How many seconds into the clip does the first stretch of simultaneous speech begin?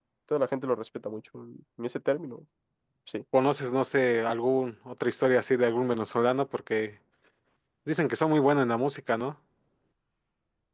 none

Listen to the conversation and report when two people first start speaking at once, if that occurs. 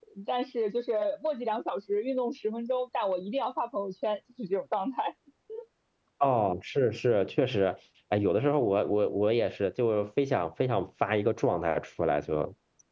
none

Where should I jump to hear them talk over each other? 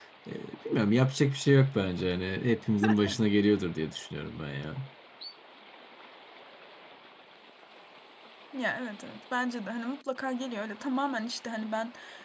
none

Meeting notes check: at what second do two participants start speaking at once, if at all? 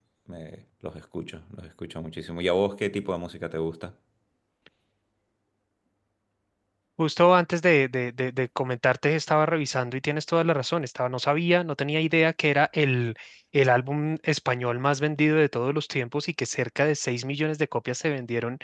none

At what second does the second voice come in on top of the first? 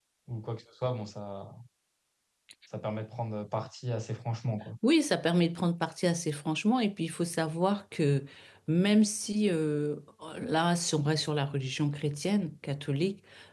none

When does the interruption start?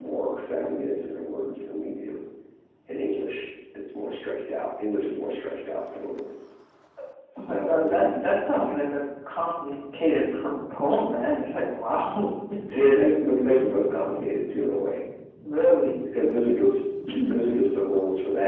7.4 s

